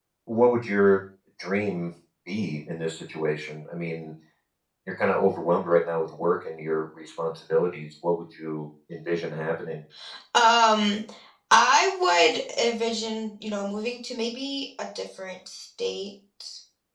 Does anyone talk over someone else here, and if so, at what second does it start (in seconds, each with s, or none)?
none